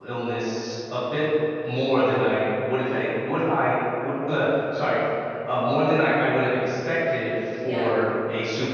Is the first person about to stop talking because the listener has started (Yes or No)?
No